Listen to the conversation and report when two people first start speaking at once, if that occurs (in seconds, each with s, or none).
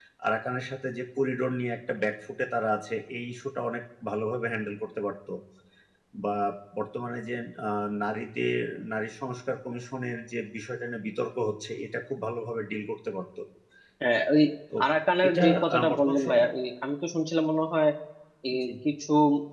15.3 s